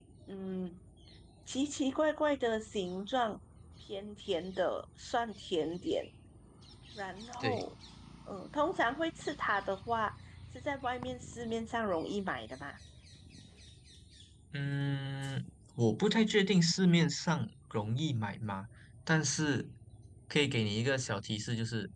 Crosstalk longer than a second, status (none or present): none